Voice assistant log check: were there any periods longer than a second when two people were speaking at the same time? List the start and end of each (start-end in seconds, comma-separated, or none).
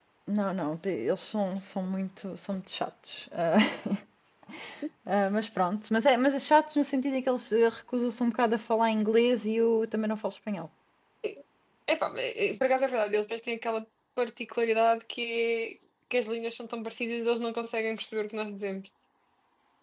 none